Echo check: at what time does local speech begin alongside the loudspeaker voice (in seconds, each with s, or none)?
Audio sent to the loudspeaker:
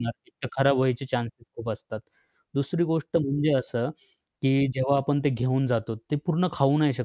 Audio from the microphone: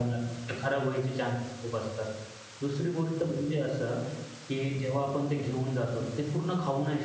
none